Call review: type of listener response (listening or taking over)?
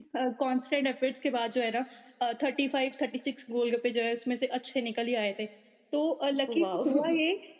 listening